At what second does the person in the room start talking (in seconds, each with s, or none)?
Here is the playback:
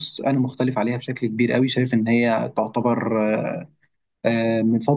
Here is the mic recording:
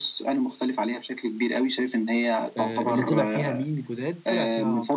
2.6 s